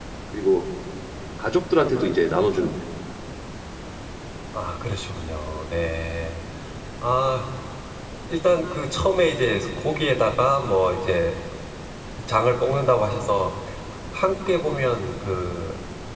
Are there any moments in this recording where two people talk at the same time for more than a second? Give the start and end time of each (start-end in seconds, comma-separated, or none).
none